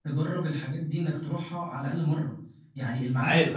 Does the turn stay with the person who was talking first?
Yes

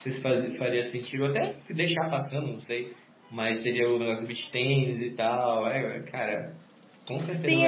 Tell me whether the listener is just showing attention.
No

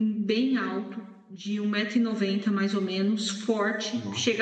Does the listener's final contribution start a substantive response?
No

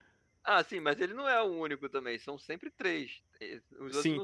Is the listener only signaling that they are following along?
No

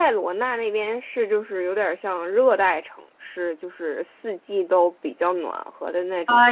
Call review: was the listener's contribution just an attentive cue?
No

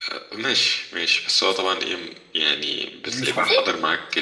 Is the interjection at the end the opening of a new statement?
No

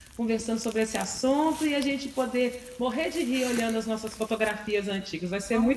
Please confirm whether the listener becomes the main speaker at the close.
Yes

